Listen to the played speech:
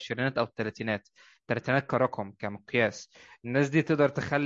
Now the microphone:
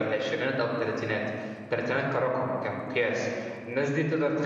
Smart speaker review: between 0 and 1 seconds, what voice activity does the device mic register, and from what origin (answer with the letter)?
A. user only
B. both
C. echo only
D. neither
C